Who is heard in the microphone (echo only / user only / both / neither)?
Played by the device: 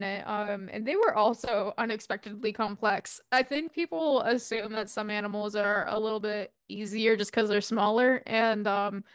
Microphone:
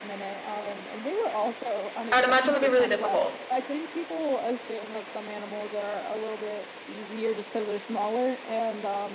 both